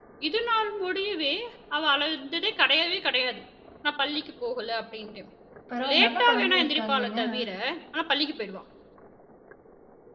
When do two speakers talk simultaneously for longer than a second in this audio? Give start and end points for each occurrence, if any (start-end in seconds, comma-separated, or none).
5.9-7.2